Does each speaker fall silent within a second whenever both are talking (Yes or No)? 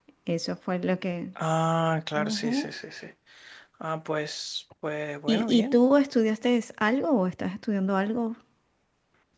Yes